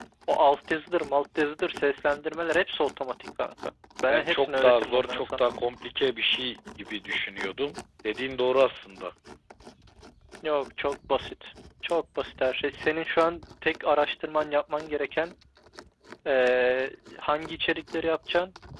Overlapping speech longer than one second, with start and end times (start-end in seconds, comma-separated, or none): 4.1-5.5